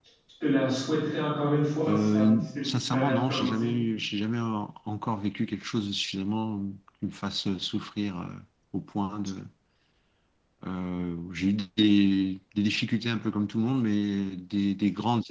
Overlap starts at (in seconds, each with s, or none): 1.9 s